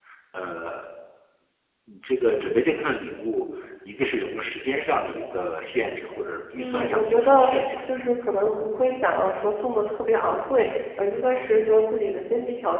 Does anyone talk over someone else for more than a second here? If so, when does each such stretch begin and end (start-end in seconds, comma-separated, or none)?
6.6-7.9